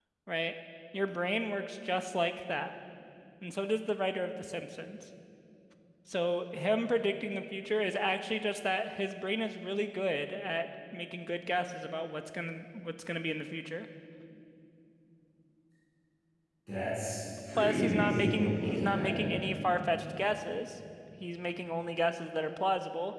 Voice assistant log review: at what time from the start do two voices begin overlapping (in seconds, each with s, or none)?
17.6 s